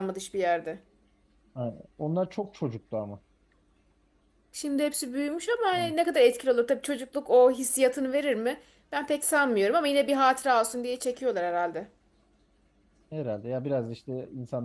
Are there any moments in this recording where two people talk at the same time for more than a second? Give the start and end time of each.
none

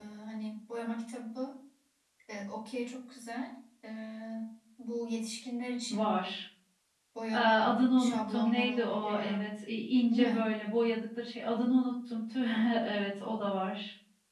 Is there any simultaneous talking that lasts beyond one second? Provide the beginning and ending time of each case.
7.3-9.4

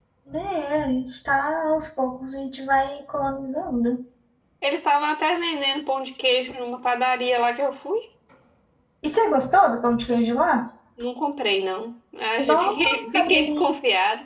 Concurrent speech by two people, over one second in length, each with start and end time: 12.4-13.7

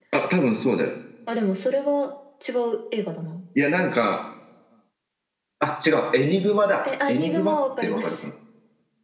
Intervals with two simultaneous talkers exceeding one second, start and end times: 6.8-8.1

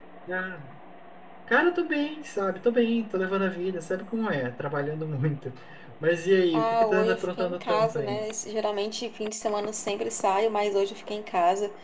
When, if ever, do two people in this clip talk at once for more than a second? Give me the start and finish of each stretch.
6.5-8.2

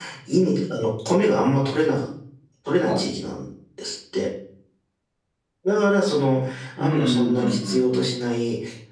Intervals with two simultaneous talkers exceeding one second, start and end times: 6.8-8.1

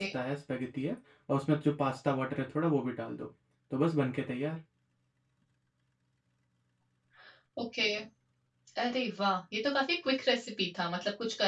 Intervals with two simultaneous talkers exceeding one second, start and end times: none

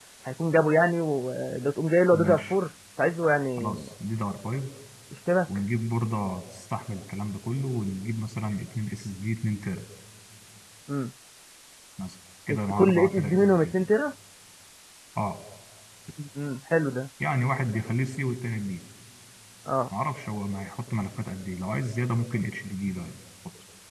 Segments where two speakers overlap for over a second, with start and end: 12.5-13.7

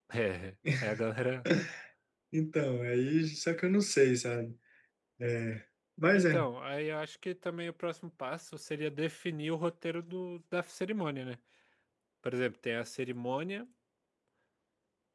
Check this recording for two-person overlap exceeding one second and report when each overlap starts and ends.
none

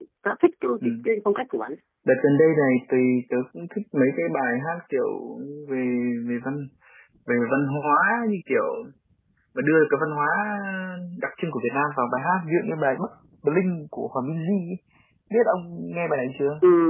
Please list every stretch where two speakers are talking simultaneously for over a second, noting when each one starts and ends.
none

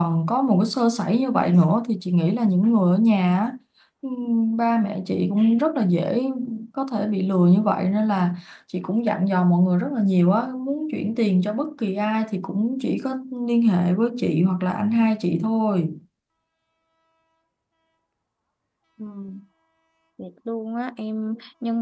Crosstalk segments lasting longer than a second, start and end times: none

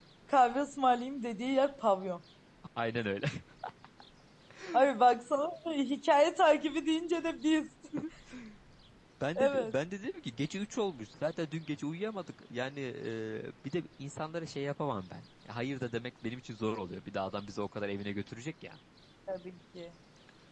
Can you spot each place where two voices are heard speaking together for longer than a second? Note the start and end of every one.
none

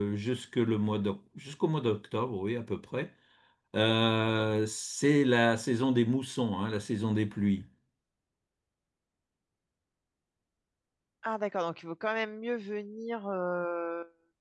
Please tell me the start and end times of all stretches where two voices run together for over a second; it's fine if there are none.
none

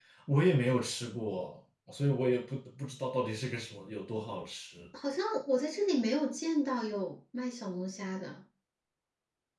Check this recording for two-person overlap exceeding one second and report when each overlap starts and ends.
none

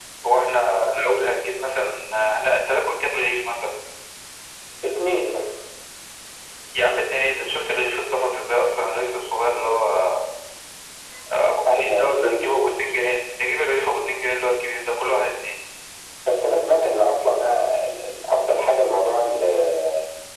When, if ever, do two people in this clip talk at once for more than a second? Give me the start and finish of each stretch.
11.3-12.8

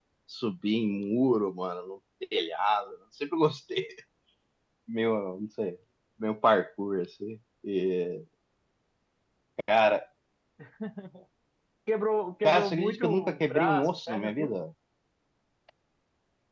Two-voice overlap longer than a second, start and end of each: 12.4-14.6

